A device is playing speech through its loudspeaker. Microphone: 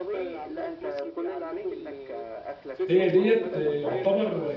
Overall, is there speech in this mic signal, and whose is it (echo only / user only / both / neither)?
both